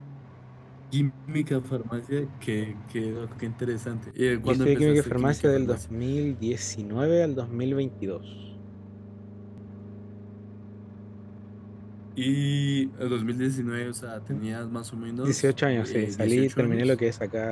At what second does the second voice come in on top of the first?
4.5 s

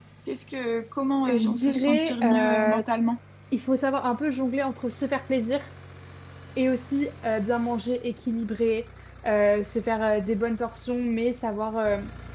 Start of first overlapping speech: 1.3 s

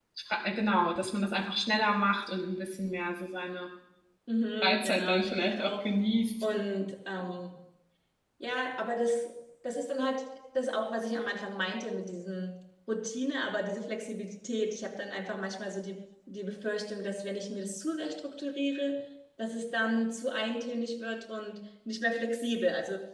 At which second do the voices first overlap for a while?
4.6 s

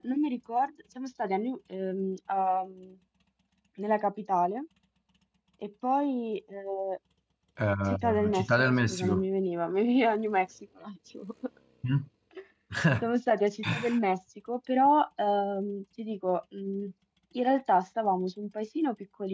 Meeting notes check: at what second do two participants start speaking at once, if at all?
7.9 s

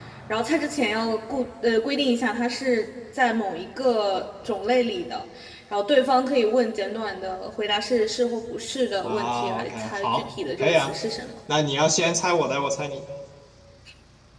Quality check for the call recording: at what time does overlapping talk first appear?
9.0 s

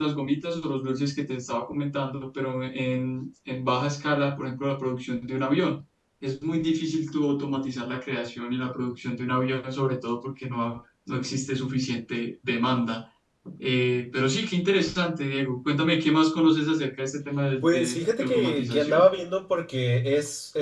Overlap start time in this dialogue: 17.6 s

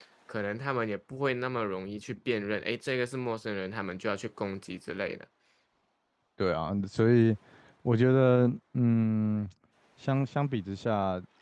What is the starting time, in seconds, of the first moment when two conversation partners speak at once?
none

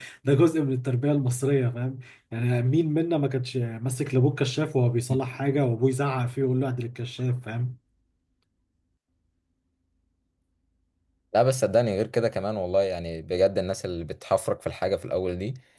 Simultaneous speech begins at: none

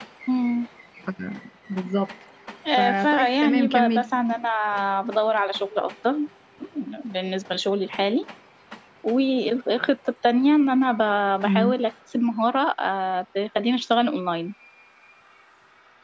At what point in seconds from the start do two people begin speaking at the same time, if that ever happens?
2.7 s

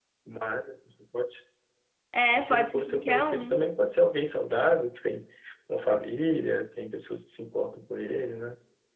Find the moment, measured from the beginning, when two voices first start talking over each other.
2.4 s

